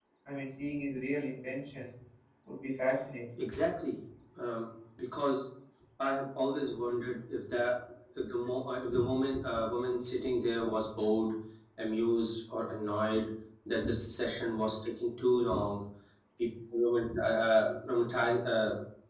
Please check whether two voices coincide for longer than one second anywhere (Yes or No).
No